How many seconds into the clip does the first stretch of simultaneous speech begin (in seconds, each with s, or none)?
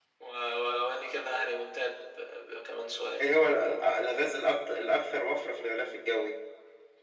none